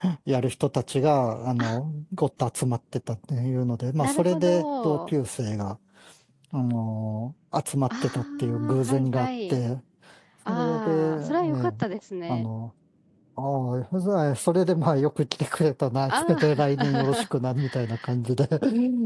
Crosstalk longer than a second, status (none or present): present